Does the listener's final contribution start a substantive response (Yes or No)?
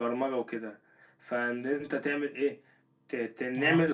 No